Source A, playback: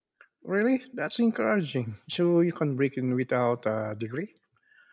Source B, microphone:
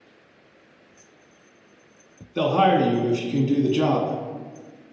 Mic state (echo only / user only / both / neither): user only